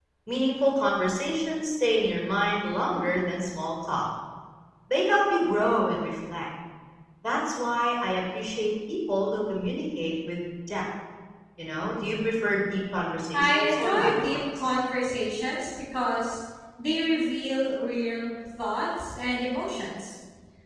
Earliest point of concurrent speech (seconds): 13.3 s

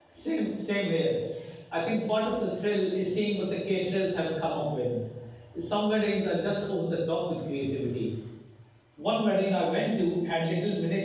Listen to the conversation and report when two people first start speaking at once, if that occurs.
none

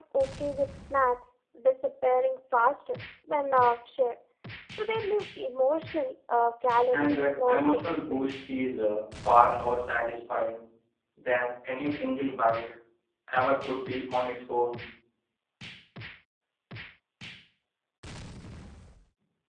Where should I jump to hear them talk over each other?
6.9 s

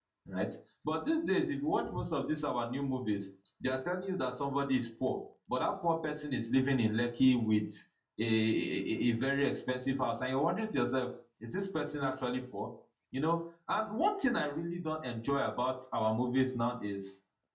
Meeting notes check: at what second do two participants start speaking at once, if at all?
none

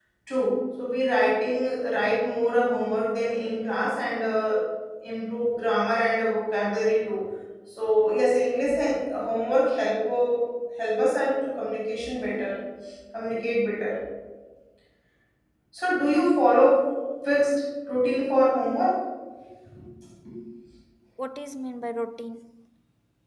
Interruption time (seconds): none

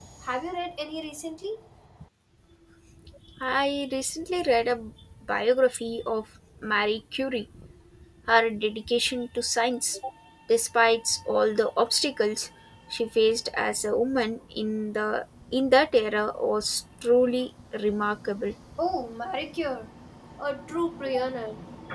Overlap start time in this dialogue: none

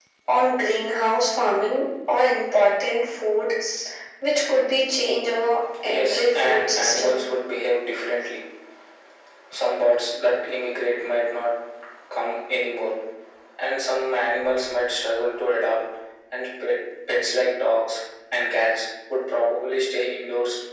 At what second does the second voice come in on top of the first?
5.9 s

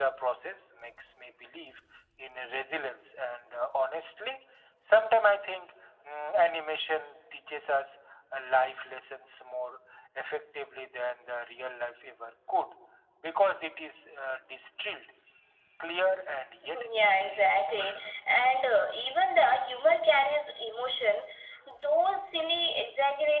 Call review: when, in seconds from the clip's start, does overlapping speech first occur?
16.6 s

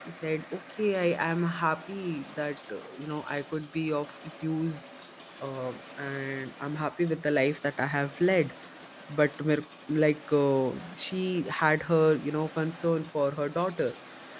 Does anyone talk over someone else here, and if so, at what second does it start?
none

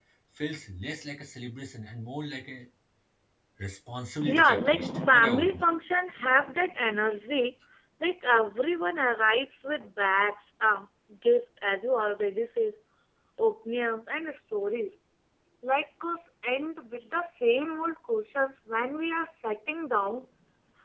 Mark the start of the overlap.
4.2 s

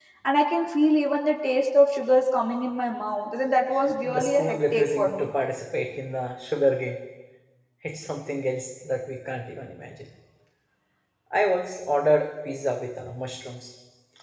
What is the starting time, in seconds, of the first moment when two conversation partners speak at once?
4.0 s

